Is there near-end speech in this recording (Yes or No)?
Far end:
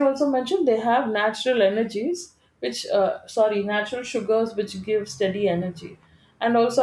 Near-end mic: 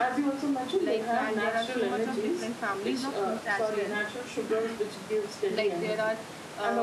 Yes